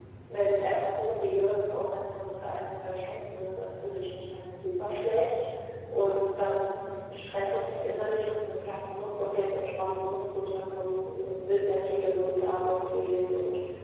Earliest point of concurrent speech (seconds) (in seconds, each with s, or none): none